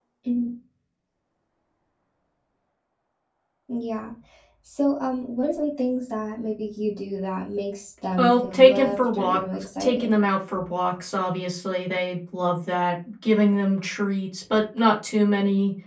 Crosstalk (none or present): present